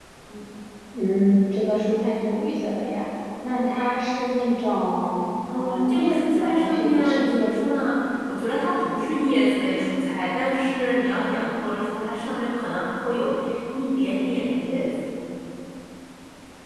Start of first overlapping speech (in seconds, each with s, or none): 5.5 s